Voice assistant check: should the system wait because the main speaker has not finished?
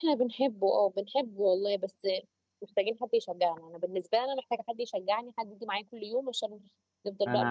No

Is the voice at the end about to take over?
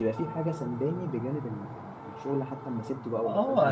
Yes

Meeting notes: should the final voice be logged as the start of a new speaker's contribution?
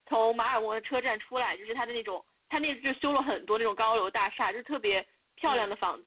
No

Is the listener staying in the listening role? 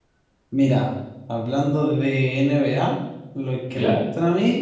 Yes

